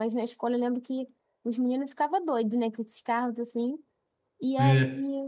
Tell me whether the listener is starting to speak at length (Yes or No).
No